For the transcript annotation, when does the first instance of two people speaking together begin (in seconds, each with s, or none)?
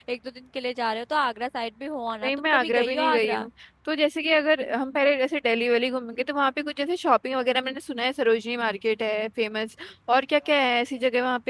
2.2 s